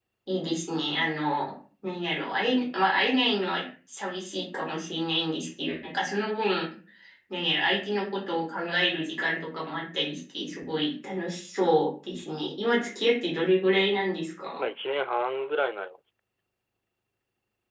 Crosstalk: none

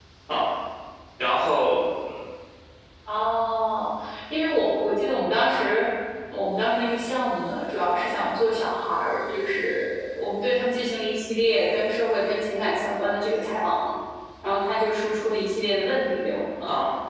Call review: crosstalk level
none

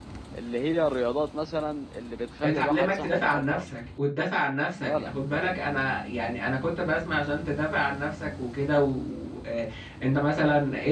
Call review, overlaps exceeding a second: present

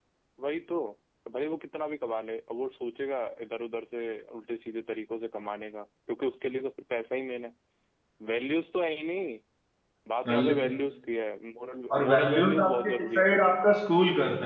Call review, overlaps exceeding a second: present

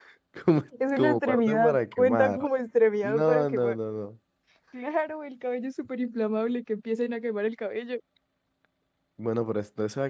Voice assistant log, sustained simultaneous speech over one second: present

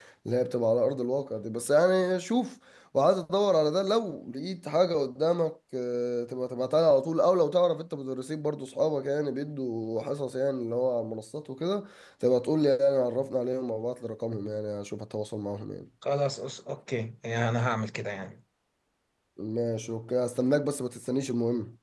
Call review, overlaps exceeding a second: none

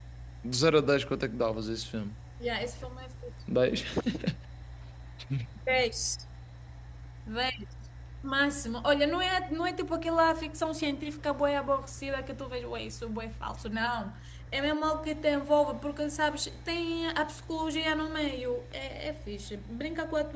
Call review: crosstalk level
none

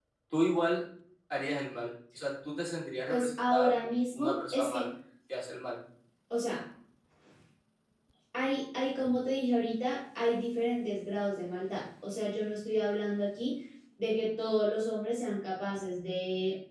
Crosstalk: present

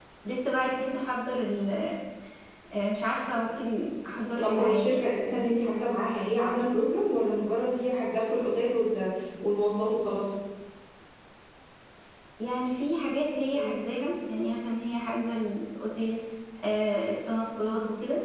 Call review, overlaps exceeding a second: present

